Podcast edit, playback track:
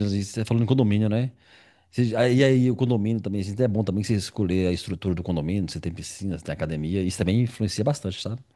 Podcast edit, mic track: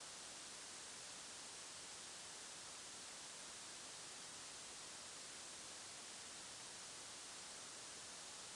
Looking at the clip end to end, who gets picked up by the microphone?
neither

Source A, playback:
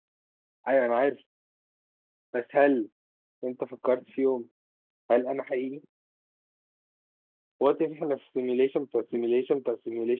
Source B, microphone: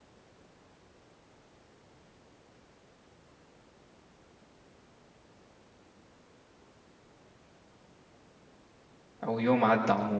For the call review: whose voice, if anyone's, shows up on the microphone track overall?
user only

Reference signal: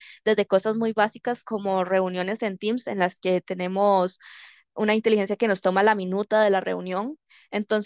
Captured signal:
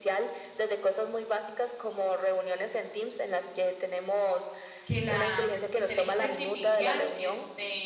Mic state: both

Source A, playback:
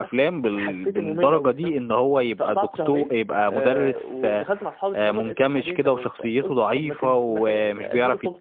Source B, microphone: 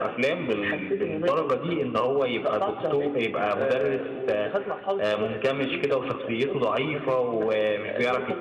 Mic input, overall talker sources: echo only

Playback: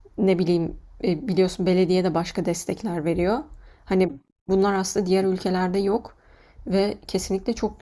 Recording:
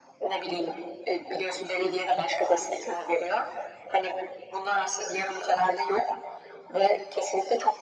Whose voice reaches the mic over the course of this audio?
echo only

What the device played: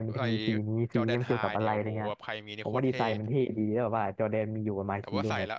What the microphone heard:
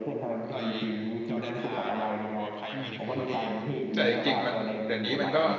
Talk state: both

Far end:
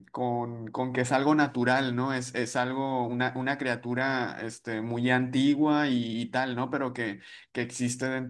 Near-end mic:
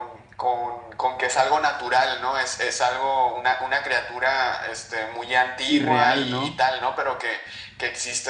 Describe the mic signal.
both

